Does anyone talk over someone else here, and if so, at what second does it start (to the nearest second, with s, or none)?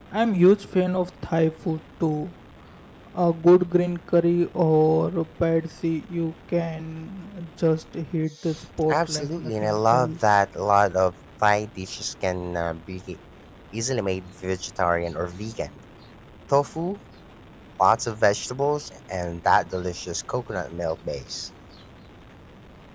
9 s